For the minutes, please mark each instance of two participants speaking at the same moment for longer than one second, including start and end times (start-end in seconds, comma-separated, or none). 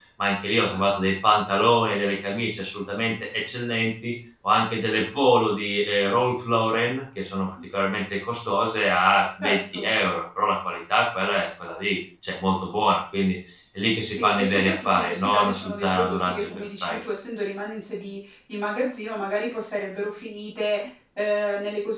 14.1-17.1